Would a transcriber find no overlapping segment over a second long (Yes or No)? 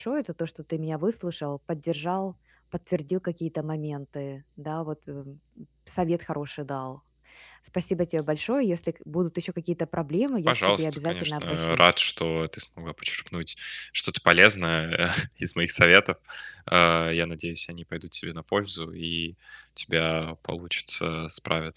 No